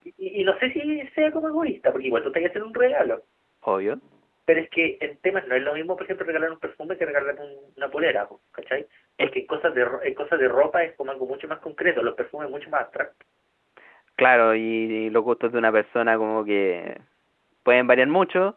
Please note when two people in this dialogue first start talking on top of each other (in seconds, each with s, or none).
none